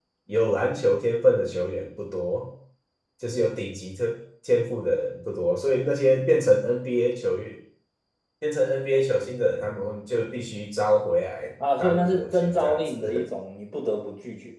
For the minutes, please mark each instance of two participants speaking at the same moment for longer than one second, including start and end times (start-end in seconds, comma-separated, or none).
11.8-13.3